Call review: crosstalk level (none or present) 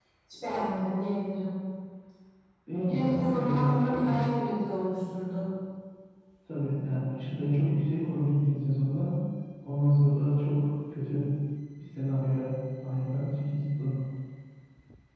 present